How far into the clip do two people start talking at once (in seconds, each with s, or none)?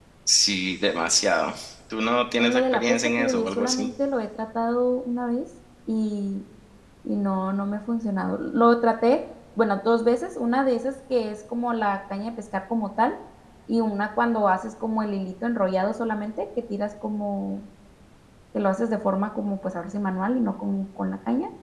2.4 s